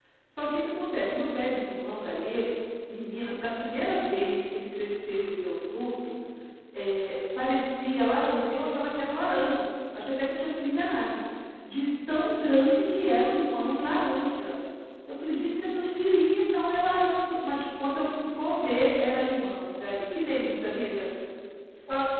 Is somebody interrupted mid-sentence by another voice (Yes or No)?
No